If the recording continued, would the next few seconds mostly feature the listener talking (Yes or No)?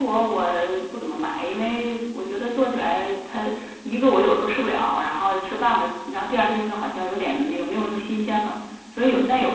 No